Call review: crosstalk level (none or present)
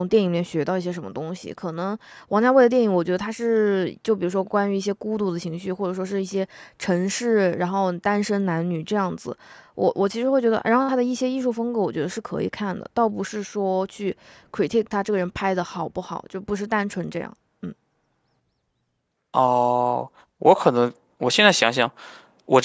none